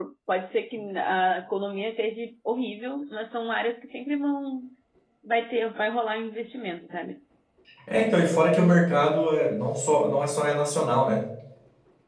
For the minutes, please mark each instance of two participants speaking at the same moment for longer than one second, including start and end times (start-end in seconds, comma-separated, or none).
none